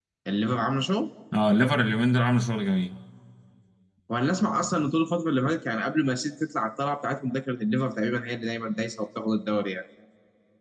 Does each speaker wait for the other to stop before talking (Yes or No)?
Yes